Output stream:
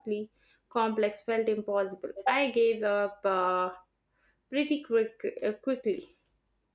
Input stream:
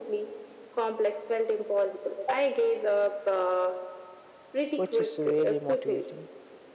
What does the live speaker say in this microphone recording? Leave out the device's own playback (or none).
which is really motivating.